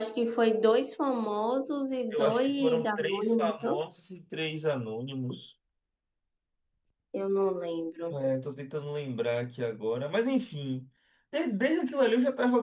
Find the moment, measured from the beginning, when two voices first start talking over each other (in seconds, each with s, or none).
2.1 s